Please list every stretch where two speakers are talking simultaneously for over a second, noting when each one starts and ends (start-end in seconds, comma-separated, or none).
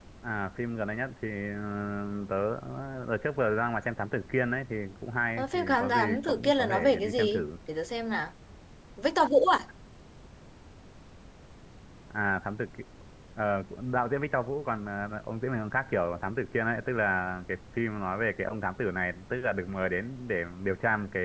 5.4-7.5